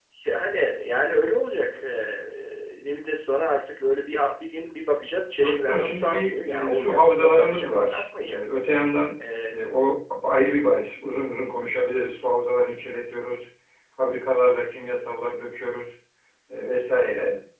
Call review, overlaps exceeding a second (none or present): present